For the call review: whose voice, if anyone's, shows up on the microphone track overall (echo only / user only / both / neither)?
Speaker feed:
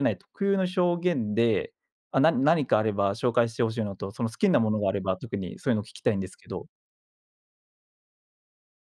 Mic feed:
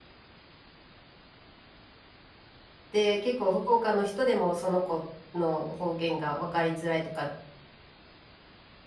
user only